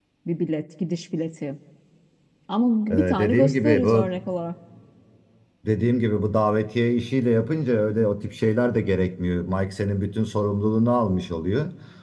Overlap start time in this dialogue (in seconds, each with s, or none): 2.9 s